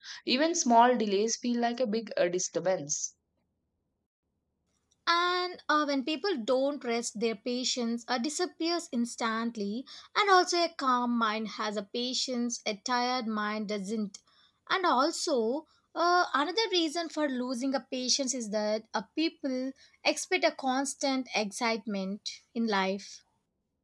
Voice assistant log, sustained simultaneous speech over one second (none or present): none